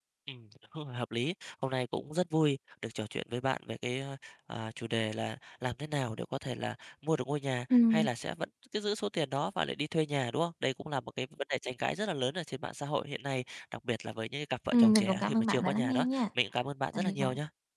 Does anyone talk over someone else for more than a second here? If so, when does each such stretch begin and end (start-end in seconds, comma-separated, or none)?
14.7-16.2